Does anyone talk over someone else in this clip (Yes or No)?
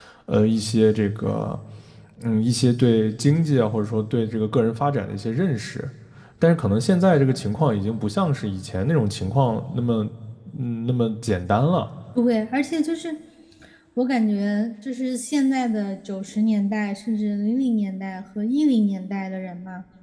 No